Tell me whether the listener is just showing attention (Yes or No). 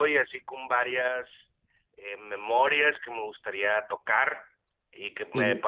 Yes